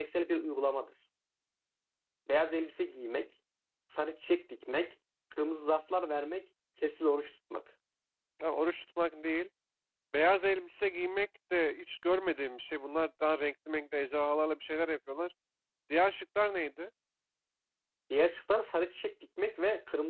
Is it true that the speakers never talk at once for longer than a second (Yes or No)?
Yes